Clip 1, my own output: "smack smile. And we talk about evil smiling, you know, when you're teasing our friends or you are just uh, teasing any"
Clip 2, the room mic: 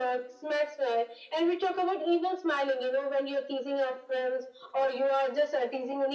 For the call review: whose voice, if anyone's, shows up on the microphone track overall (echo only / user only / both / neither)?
echo only